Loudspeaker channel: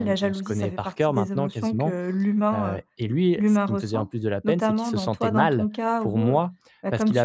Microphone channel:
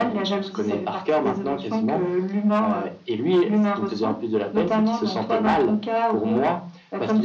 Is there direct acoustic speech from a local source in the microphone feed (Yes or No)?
No